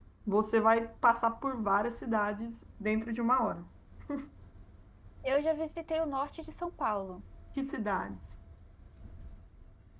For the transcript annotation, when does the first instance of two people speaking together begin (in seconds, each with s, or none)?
none